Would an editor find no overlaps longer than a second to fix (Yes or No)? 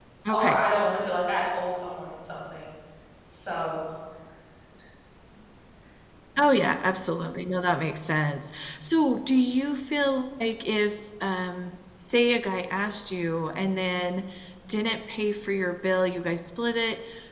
Yes